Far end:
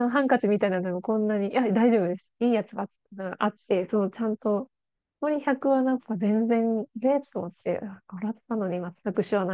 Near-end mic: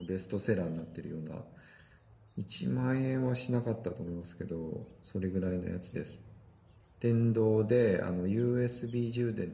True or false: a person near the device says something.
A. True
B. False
A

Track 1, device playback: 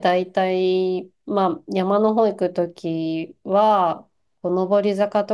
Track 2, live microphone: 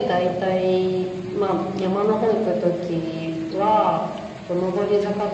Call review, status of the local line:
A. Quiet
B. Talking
A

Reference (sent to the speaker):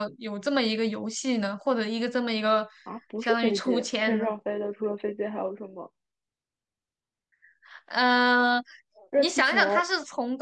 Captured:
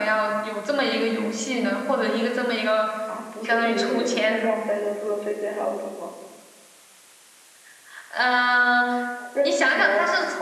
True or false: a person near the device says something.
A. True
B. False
B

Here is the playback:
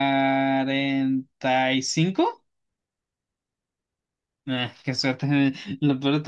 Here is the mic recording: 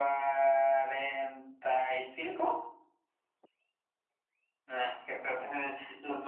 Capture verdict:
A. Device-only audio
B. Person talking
B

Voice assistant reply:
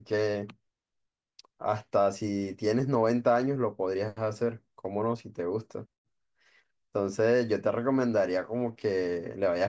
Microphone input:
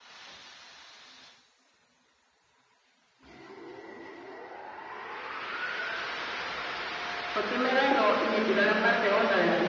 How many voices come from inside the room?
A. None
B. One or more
B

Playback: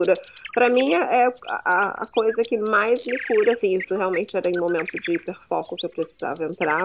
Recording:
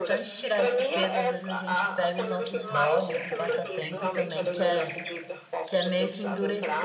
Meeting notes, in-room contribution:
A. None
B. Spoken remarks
B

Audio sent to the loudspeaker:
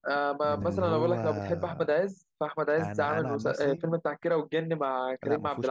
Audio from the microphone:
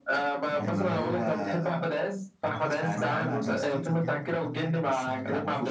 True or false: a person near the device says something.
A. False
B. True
B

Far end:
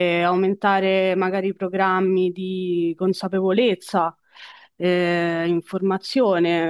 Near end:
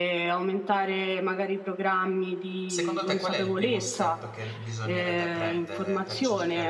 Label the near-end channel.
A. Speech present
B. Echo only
A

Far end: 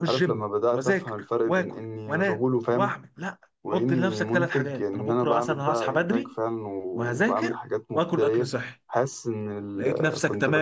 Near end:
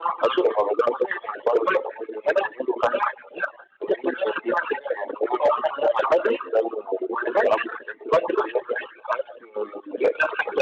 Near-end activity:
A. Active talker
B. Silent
B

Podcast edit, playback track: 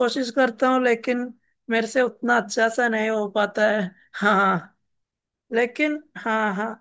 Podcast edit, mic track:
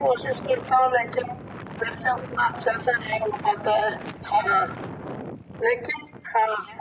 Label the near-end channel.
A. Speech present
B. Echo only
B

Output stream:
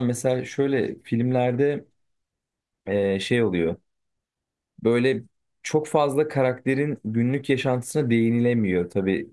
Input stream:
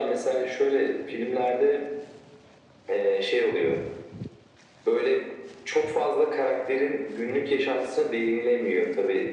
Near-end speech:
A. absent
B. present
A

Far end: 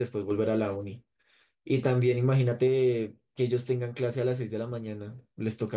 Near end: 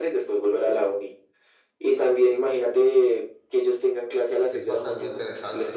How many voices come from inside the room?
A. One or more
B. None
A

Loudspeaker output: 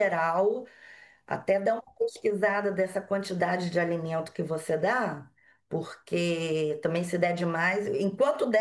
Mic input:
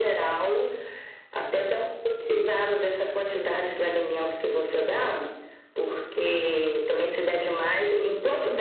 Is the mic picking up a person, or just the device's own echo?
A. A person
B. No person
B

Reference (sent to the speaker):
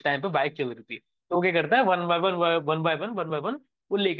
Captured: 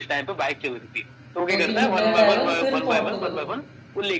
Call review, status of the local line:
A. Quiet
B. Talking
B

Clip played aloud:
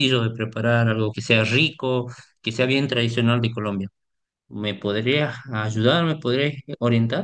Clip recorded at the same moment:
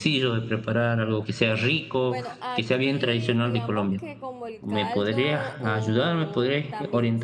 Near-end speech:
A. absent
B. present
B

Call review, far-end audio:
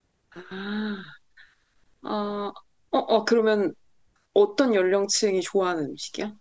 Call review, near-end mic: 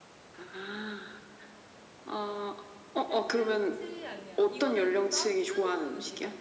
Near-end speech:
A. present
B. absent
A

